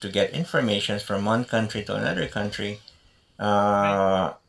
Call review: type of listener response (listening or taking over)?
listening